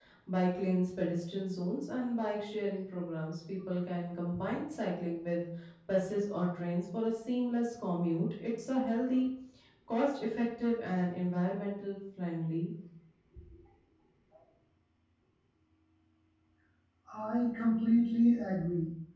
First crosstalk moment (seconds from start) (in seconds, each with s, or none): none